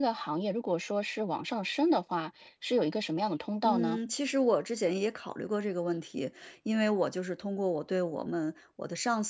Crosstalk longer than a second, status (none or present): none